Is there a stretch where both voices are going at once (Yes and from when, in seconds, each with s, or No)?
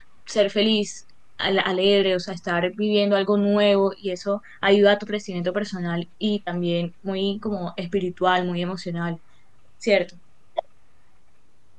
No